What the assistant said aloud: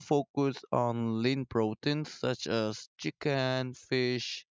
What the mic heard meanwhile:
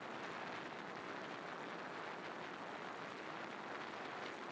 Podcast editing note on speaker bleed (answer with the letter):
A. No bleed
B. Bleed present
A